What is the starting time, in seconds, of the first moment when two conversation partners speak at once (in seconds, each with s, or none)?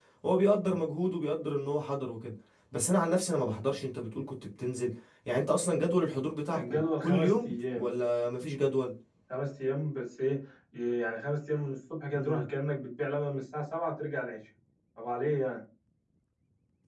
6.6 s